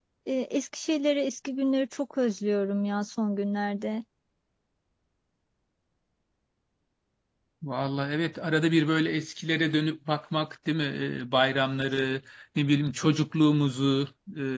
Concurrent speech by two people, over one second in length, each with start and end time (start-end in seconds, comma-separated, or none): none